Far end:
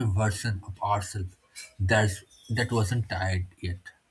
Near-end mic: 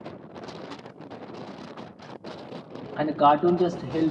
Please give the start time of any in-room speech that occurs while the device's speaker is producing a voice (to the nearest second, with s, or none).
3 s